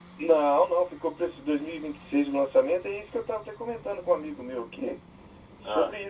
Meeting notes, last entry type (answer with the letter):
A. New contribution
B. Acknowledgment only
B